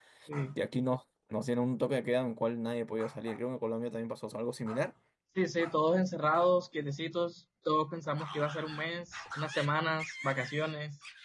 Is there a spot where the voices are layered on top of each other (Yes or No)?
No